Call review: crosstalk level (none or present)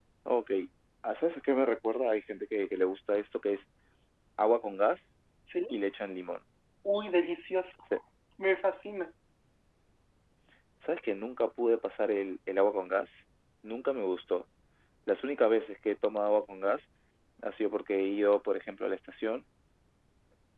none